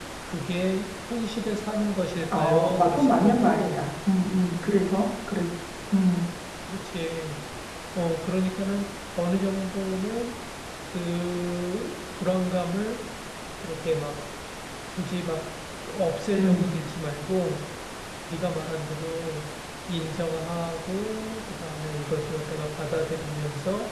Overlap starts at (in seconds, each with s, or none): 2.3 s